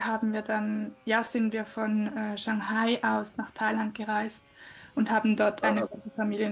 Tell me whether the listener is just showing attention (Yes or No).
Yes